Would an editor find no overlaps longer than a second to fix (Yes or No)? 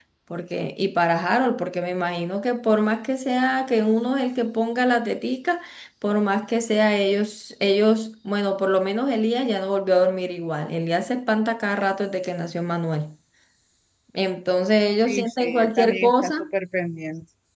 No